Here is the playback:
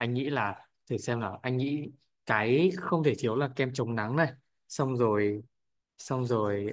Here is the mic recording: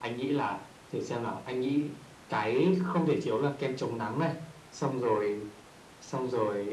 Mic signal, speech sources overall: echo only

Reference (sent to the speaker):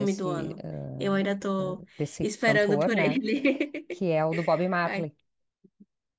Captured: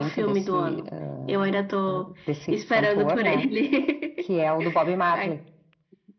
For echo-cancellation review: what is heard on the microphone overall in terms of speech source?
echo only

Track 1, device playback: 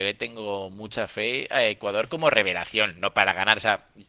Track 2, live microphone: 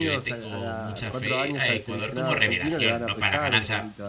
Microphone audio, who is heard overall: both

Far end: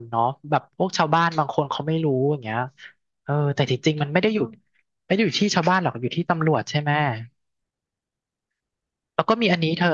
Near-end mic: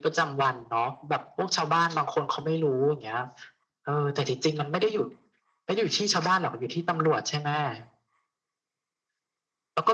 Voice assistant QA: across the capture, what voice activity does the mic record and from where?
echo only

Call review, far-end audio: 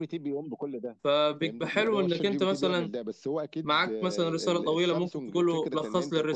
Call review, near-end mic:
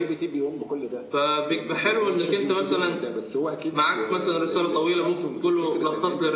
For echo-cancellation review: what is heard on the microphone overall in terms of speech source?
echo only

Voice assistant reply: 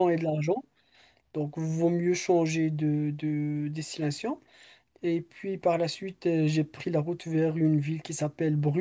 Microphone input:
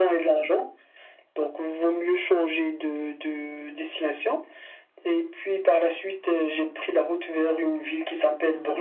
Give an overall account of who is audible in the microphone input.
echo only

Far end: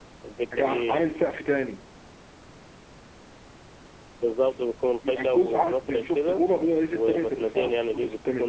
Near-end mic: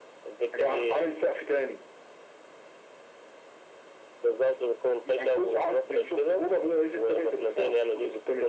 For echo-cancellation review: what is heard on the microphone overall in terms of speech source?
echo only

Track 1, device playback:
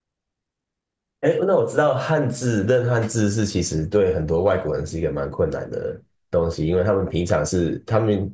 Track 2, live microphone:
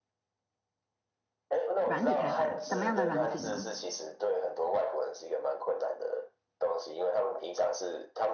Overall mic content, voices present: both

